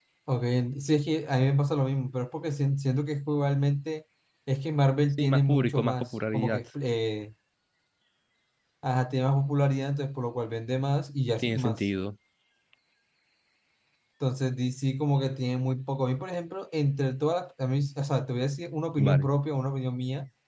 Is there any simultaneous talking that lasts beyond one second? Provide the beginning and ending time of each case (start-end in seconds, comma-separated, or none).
5.2-6.6